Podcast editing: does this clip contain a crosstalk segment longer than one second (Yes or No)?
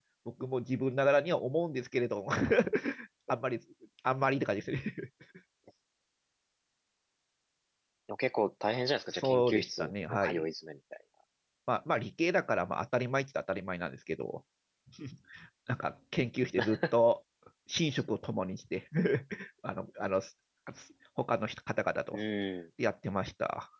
Yes